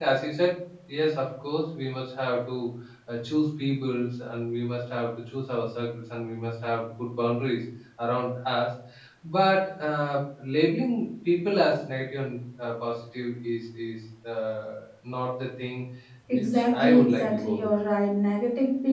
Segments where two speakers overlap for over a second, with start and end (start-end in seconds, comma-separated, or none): 16.3-17.7